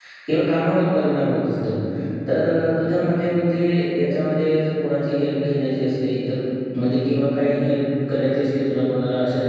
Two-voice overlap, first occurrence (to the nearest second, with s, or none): none